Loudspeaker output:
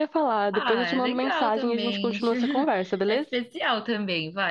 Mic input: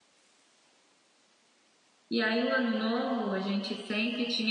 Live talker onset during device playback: 2.1 s

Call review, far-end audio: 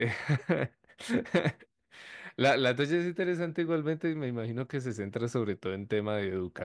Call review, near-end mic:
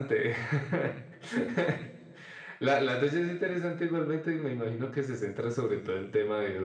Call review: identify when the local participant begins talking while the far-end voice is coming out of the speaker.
none

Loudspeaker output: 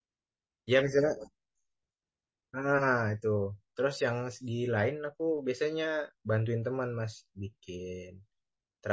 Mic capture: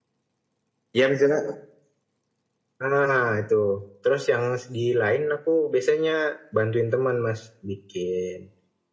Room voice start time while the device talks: none

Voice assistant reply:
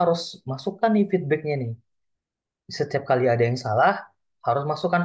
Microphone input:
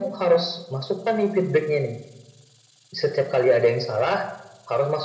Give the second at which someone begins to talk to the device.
none

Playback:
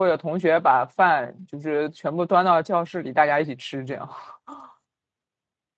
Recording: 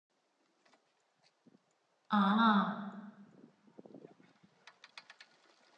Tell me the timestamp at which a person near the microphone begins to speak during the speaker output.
2.1 s

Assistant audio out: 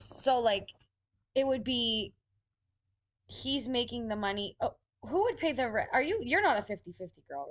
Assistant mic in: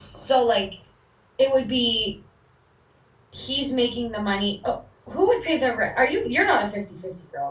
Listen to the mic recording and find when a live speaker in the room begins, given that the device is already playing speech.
none

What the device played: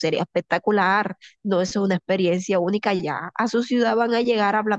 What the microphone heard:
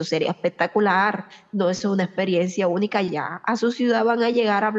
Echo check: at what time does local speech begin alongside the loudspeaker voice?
none

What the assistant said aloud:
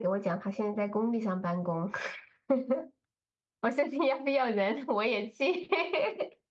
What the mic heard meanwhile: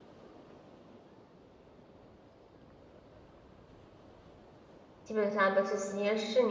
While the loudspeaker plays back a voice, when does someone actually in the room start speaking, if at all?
5.0 s

